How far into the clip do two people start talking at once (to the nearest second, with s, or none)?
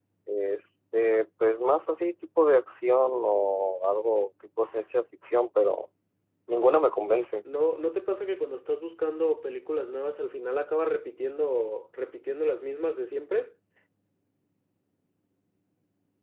none